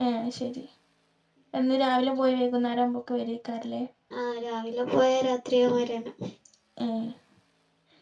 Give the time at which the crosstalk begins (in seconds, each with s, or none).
none